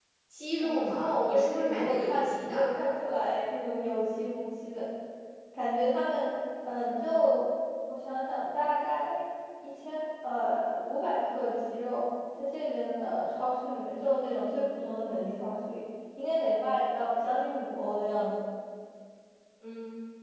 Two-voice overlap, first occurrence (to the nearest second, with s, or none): 1 s